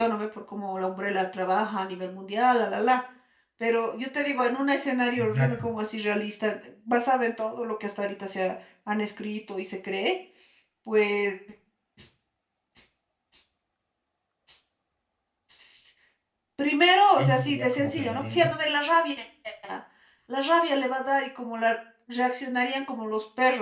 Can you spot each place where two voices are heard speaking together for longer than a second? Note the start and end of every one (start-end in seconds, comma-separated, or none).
17.2-18.5